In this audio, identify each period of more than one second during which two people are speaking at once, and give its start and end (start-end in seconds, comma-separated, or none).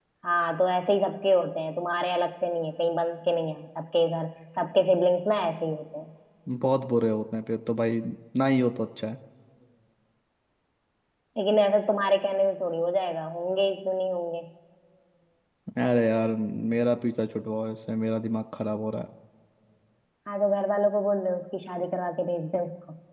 none